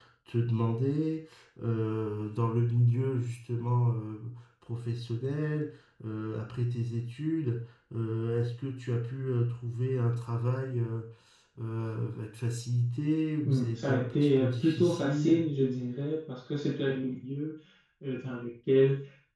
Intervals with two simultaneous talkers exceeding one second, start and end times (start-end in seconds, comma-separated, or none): 13.4-15.4